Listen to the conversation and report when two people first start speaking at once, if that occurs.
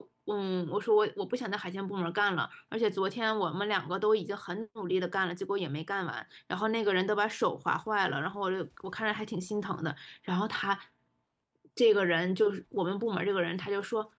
none

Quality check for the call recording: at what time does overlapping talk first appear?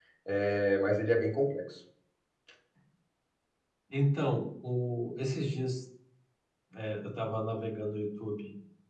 none

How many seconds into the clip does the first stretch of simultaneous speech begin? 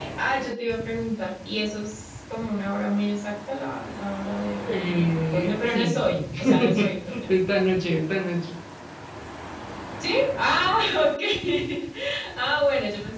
5 s

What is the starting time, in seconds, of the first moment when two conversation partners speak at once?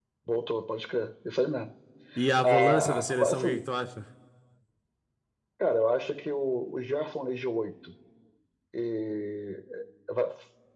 2 s

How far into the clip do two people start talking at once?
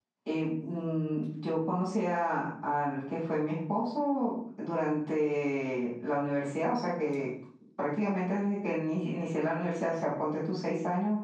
none

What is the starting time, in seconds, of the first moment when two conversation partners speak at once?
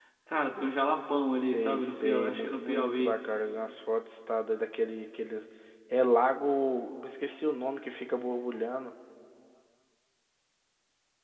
2 s

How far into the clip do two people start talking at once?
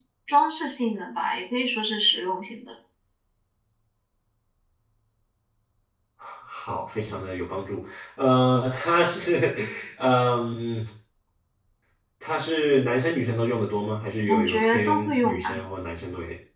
14 s

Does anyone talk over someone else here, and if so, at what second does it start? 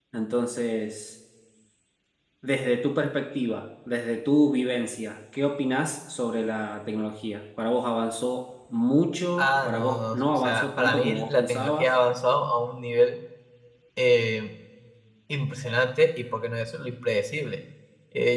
9 s

